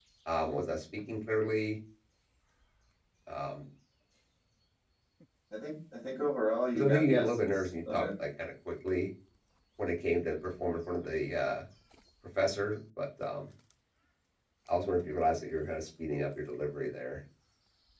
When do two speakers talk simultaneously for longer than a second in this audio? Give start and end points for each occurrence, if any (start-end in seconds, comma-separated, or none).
6.7-8.0